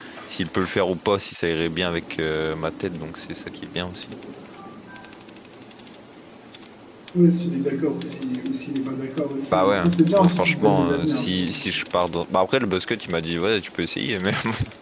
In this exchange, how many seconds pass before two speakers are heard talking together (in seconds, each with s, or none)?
9.5 s